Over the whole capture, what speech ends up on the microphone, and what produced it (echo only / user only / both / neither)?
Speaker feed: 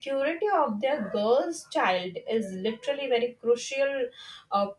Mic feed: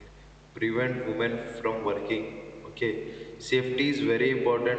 user only